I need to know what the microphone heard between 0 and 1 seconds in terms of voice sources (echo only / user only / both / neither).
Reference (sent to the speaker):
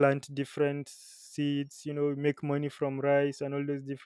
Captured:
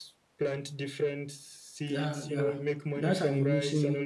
echo only